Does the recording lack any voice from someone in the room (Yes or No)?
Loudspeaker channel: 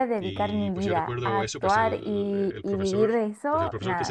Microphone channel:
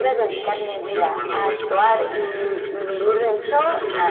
No